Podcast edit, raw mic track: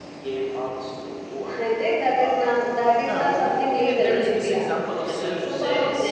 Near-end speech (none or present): present